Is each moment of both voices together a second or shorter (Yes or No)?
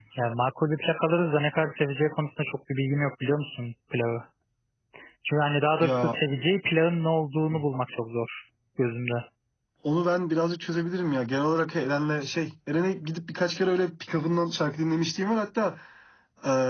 Yes